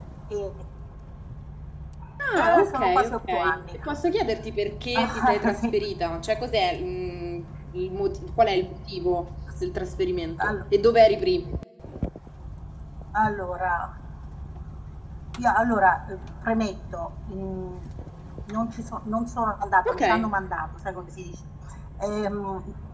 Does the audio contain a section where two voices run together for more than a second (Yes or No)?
Yes